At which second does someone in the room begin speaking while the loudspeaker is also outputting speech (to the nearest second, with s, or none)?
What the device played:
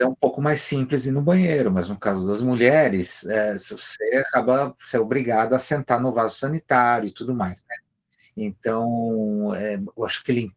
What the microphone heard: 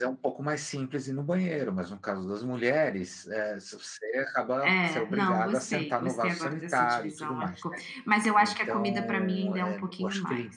5 s